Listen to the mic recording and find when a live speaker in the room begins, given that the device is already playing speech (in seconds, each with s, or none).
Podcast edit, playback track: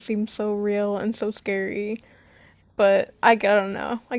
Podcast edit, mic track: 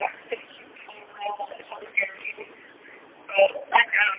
none